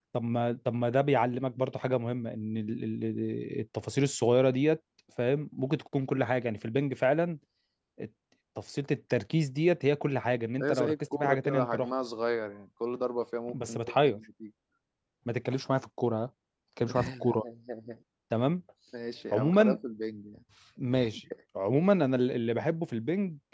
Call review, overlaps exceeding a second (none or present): present